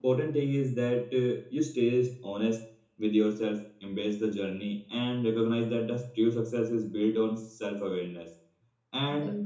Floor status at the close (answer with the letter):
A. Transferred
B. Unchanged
B